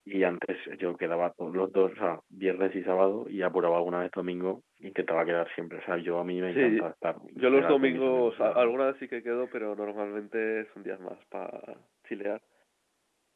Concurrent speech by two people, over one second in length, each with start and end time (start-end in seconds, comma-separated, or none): 7.4-8.7